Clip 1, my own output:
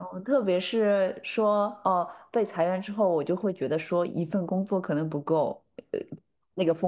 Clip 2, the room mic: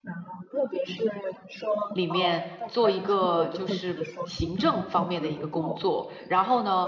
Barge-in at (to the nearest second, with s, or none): 2 s